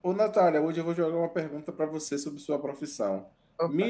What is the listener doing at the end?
listening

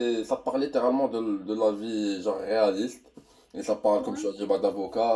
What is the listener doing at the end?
listening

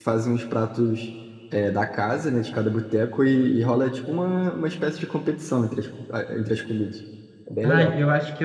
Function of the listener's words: taking over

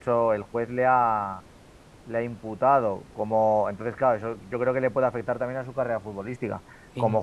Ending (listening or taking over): listening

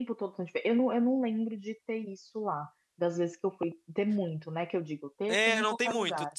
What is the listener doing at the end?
taking over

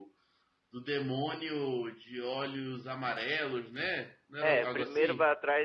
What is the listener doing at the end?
taking over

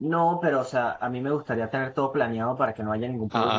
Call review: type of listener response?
listening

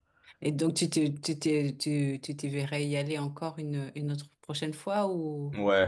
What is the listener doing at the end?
taking over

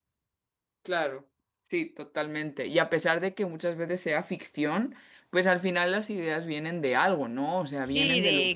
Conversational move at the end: taking over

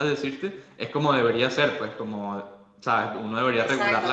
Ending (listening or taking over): taking over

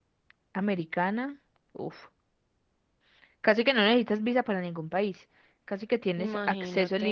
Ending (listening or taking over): listening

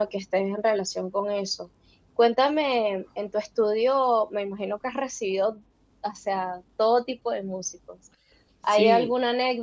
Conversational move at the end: listening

